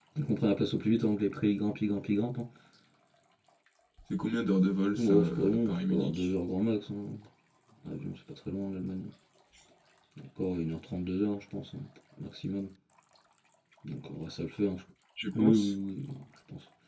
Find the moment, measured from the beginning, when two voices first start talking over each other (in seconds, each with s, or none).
5.0 s